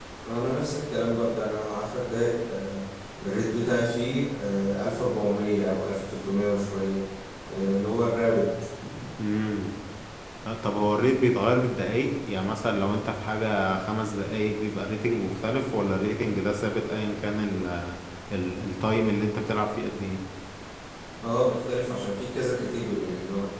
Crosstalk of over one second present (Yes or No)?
No